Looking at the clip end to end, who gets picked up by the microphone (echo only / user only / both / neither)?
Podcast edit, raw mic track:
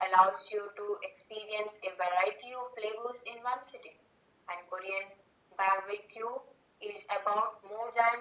echo only